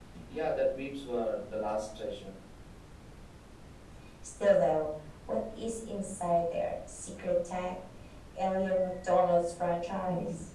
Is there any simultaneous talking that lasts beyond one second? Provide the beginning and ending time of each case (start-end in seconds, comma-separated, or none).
none